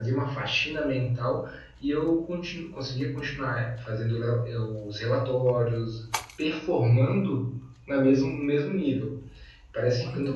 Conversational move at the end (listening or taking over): listening